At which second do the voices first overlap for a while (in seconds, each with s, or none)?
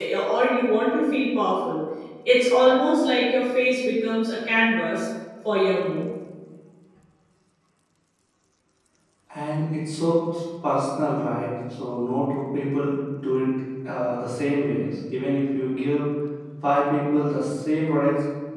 none